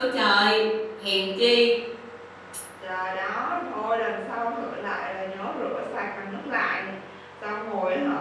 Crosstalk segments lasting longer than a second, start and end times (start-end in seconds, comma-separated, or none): none